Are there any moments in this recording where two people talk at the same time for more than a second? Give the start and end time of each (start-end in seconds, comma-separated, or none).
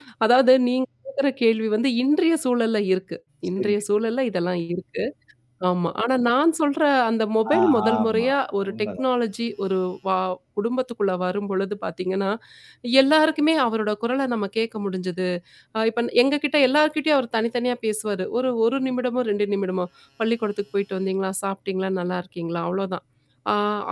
7.6-8.9